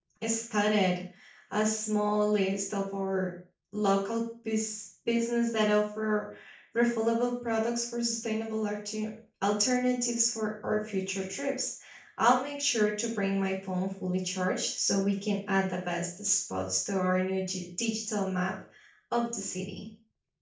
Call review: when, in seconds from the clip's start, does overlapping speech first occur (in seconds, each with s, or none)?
none